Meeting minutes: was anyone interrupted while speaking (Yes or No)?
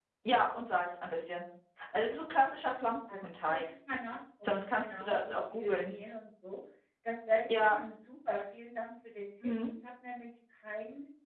Yes